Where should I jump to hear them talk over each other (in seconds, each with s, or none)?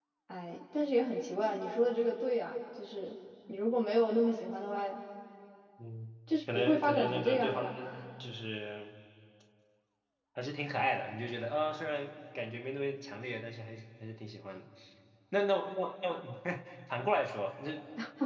6.5 s